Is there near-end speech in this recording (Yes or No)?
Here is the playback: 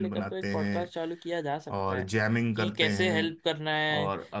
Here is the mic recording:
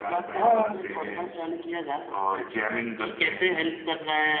Yes